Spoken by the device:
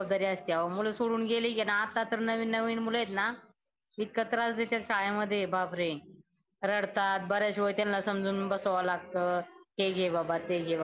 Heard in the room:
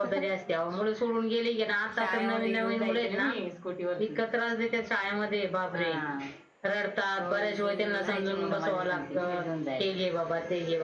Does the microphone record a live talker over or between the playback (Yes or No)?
Yes